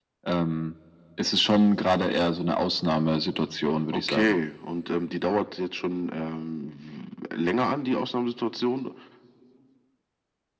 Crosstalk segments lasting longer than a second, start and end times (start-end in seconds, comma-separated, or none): none